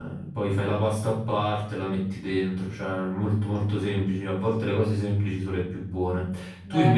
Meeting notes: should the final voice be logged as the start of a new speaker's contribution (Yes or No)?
Yes